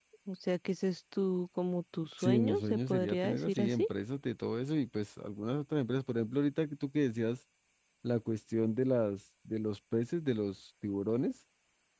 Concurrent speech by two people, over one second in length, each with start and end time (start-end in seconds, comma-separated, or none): 2.2-3.9